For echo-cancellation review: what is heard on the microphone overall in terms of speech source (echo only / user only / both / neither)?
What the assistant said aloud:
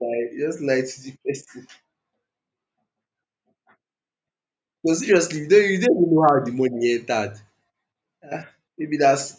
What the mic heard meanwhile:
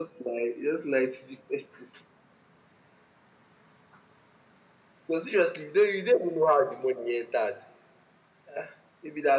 echo only